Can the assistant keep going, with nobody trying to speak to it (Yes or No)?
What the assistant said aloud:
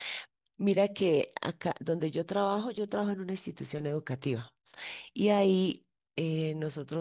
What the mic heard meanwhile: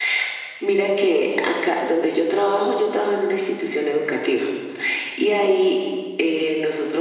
Yes